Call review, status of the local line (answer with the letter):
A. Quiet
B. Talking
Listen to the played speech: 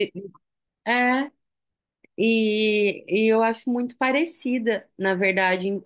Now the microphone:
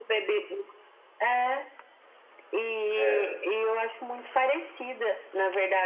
B